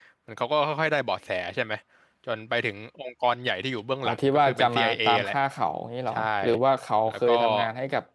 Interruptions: present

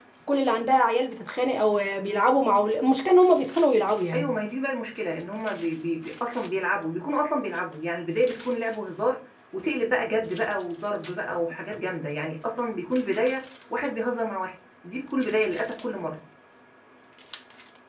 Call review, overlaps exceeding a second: none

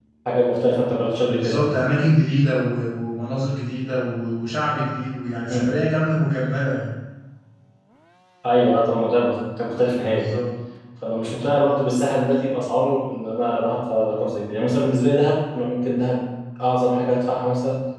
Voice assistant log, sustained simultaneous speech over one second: none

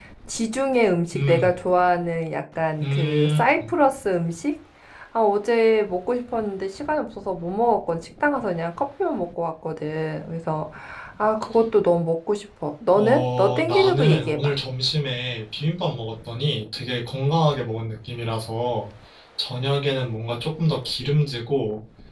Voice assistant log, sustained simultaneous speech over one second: present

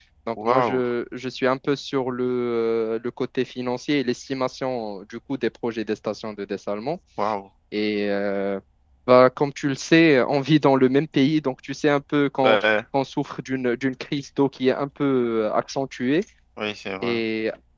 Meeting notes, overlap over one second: none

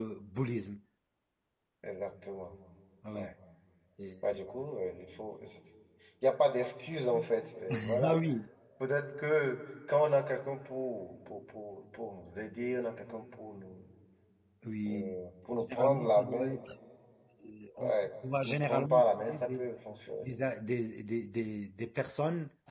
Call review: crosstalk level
present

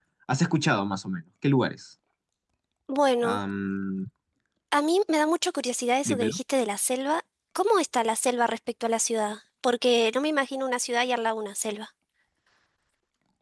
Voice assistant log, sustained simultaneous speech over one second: none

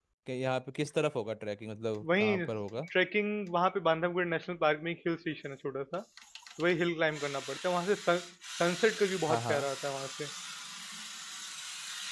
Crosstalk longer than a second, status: none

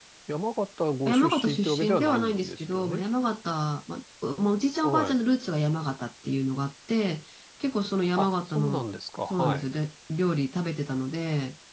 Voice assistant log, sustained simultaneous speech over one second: present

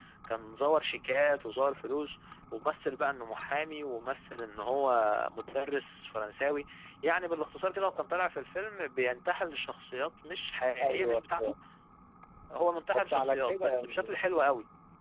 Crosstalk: present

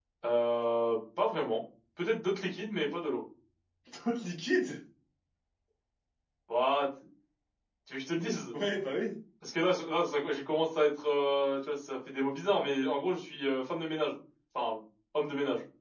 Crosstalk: none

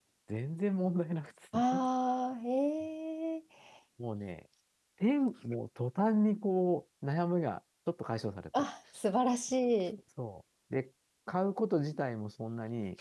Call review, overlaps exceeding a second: none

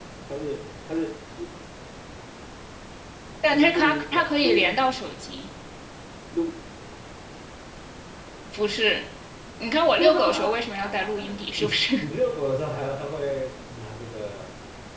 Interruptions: present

